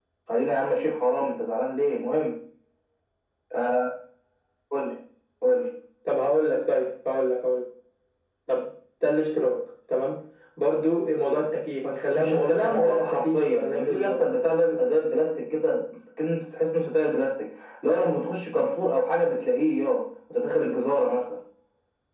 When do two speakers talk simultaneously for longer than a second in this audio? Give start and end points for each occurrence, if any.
12.2-14.2

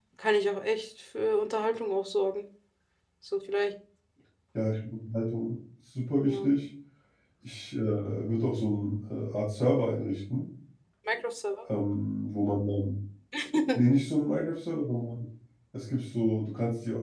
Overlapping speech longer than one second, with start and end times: none

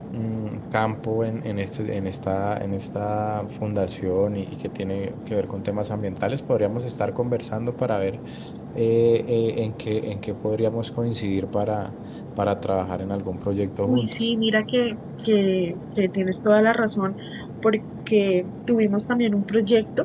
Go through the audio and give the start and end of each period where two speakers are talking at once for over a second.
none

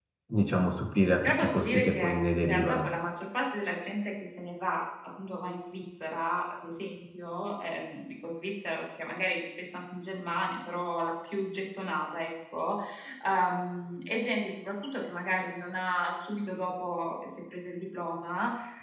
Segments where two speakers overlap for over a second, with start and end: 1.2-2.9

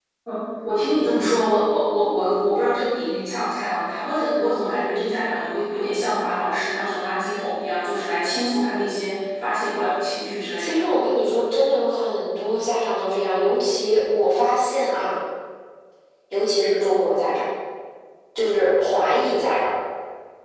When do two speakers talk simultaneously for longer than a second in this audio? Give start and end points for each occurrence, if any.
none

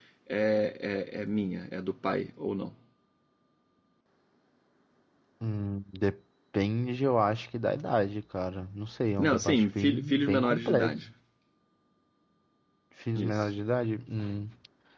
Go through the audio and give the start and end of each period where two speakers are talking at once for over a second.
9.2-11.0

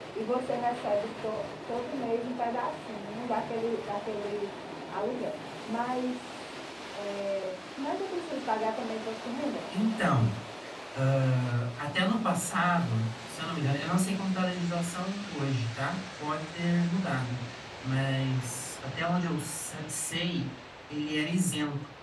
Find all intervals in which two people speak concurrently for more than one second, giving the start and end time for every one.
none

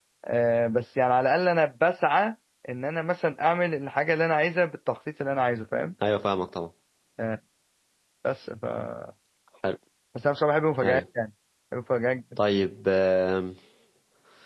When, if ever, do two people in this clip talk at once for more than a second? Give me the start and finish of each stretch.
none

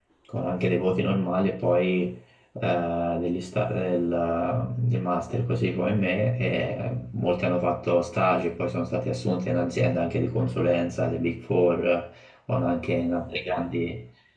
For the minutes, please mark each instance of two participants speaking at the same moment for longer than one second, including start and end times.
none

